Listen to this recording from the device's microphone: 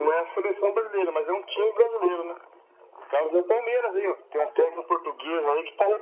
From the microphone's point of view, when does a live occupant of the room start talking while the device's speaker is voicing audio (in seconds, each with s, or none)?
none